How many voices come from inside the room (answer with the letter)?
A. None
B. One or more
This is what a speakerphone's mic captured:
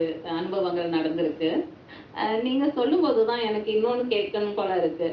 A